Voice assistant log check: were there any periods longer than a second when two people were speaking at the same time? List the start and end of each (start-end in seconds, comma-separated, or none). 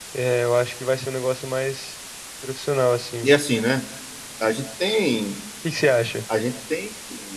none